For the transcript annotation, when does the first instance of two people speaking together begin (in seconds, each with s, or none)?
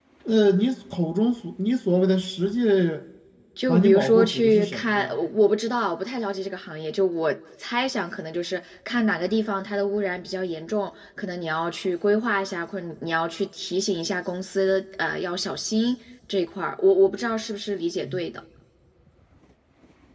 3.7 s